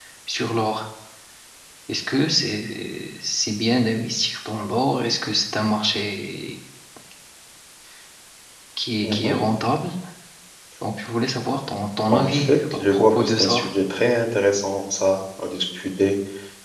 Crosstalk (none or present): present